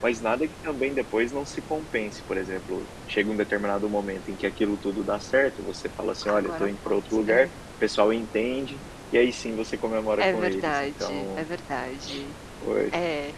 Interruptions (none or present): present